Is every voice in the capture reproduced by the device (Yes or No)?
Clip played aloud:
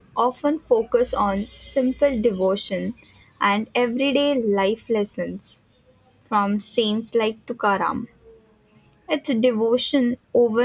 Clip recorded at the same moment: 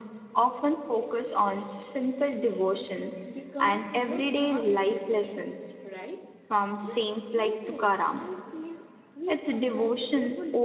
No